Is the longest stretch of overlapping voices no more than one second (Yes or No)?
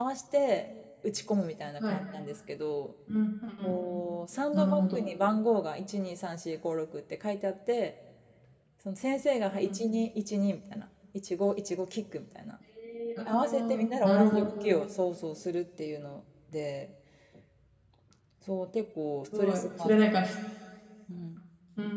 No